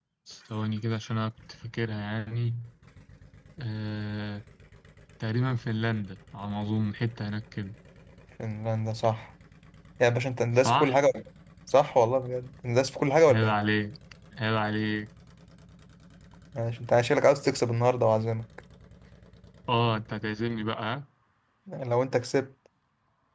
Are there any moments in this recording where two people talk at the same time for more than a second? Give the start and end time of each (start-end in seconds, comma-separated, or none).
none